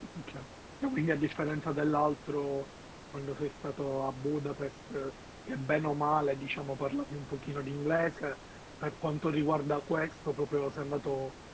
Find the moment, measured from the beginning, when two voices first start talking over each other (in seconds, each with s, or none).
none